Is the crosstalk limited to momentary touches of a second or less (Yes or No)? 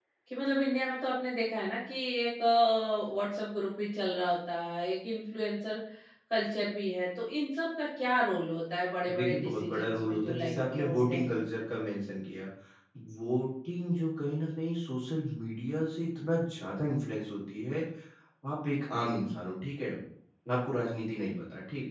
No